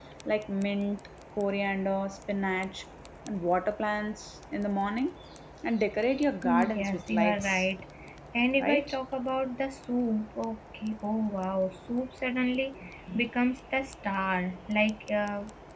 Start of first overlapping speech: 6.4 s

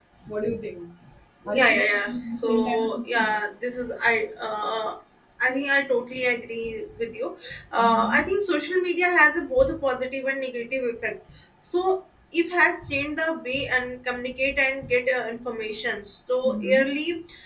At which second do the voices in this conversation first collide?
1.5 s

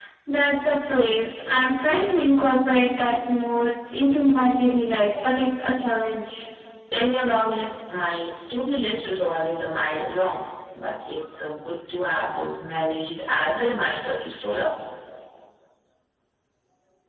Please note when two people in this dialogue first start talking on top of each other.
none

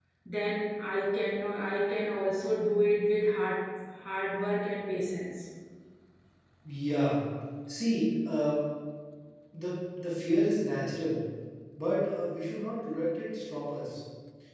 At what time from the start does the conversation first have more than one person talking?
none

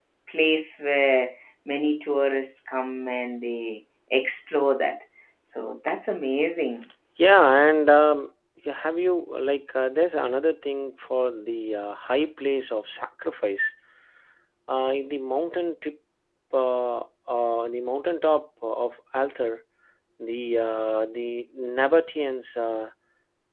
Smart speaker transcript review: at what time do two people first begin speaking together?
none

